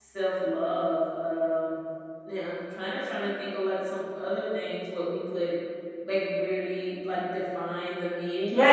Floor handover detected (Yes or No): Yes